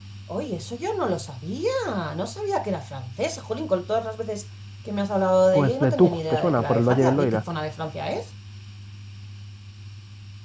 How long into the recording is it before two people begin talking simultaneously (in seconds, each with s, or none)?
5.5 s